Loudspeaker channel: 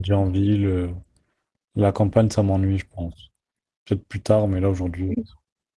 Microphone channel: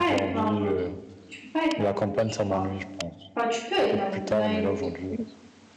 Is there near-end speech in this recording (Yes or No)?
Yes